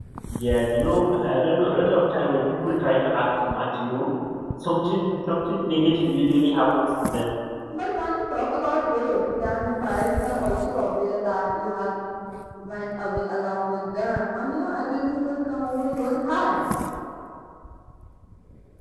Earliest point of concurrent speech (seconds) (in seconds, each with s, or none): none